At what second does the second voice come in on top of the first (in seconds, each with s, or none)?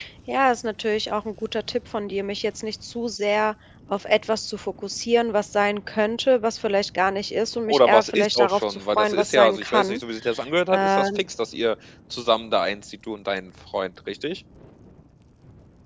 7.7 s